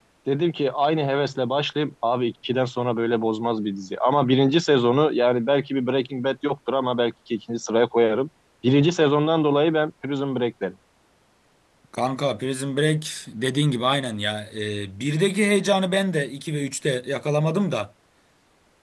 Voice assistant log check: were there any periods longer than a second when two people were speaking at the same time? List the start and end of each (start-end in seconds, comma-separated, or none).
none